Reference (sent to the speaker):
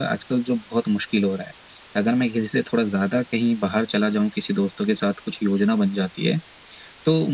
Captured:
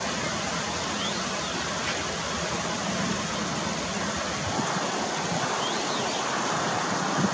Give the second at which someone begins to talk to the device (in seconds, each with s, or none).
none